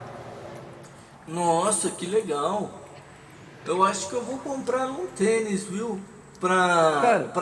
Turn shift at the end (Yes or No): No